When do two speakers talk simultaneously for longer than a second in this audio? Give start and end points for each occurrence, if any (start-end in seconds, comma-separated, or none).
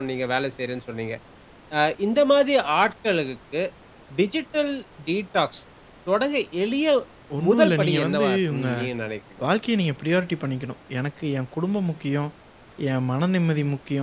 7.5-8.7